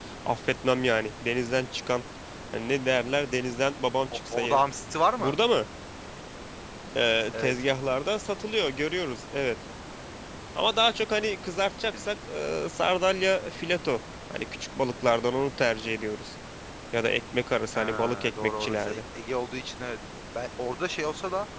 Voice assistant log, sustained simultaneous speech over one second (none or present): present